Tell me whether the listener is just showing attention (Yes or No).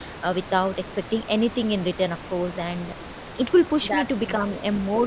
Yes